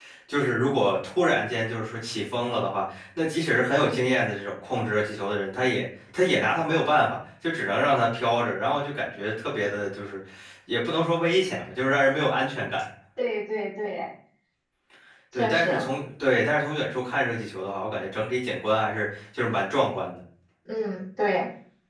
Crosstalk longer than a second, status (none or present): none